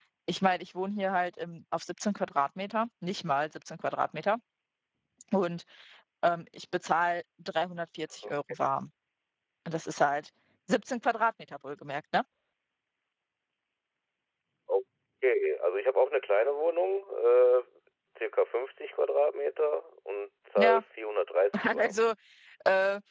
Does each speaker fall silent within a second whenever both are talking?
Yes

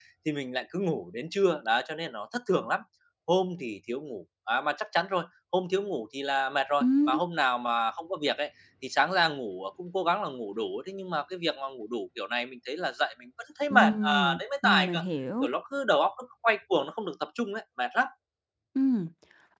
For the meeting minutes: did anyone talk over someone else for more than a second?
Yes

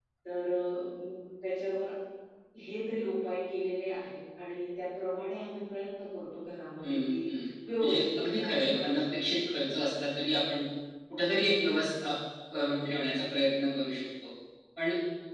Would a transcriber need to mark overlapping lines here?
Yes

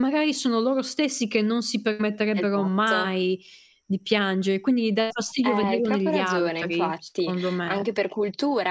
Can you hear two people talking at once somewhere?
Yes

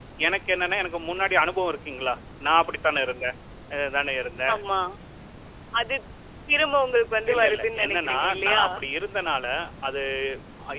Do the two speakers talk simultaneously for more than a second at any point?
Yes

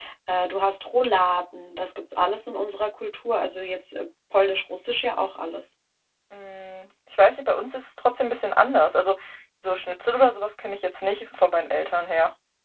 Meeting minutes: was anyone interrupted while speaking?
No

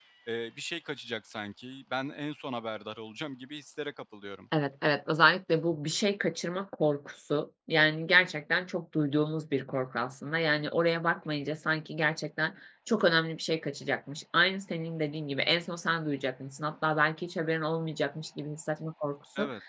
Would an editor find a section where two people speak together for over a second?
No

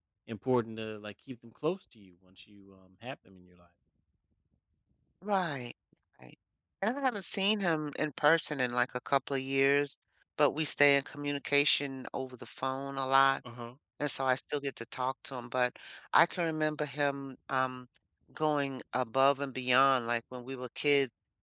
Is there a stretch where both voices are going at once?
No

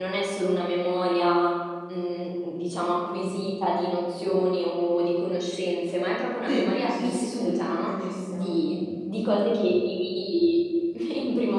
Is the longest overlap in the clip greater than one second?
Yes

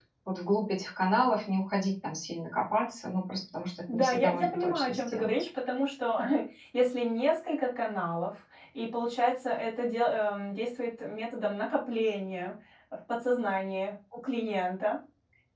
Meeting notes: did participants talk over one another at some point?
Yes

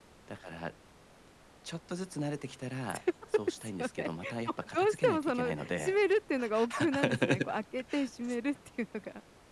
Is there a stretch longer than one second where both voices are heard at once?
Yes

